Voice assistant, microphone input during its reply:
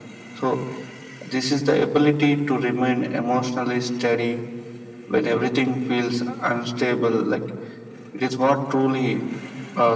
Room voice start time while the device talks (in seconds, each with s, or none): none